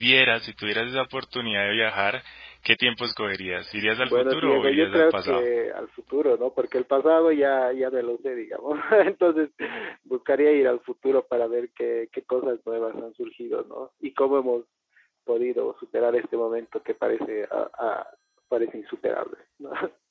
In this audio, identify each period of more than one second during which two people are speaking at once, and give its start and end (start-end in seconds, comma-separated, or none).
4.0-5.4